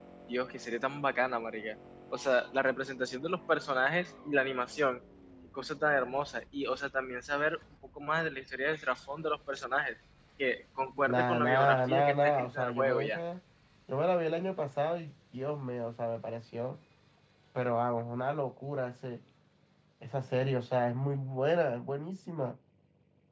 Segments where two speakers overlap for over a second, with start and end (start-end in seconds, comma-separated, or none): 11.1-13.2